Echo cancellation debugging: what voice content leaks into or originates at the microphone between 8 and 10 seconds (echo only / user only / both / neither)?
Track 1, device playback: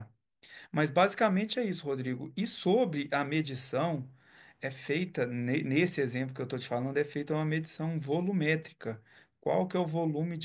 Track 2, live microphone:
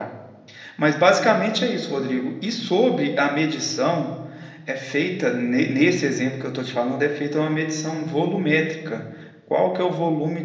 echo only